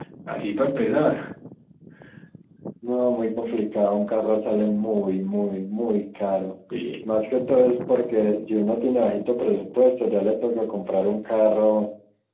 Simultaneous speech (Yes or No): No